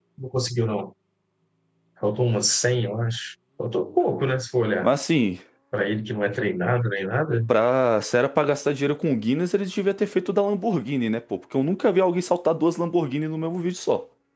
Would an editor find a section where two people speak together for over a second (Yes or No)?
No